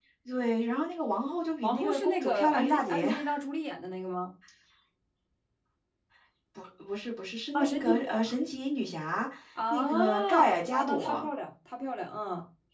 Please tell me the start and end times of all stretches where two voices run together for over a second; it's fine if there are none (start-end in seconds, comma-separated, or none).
1.6-3.1, 9.7-11.3